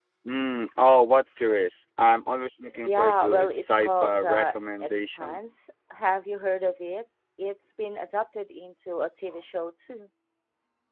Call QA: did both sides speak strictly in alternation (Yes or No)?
No